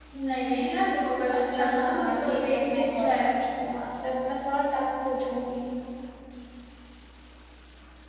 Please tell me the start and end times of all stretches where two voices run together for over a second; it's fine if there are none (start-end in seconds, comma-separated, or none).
1.3-3.3